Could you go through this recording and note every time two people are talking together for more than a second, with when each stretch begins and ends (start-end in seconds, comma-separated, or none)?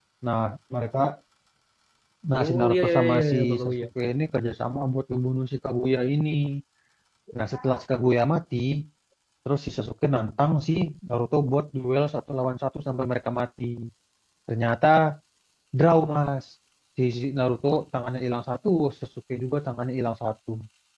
2.4-3.7